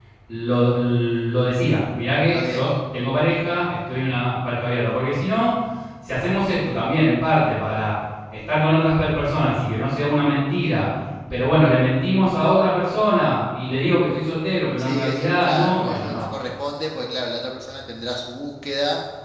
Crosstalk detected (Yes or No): Yes